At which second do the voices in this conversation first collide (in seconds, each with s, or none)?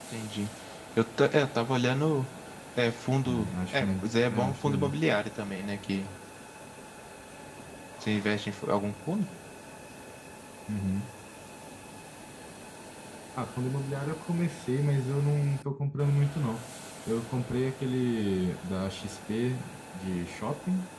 3.2 s